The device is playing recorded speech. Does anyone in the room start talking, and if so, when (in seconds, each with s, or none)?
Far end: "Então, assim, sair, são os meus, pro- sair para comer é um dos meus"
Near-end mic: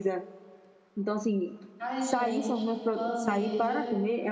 1.8 s